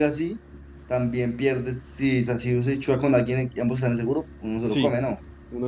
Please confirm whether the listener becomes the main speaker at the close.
Yes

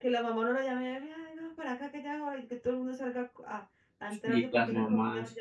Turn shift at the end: Yes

